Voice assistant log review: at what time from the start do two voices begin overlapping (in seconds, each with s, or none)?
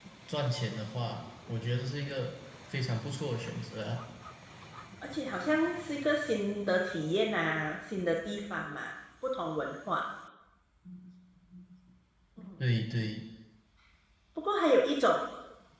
none